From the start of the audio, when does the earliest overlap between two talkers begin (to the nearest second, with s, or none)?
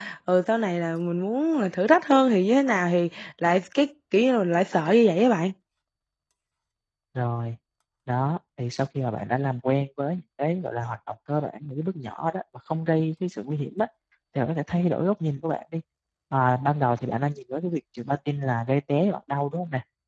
none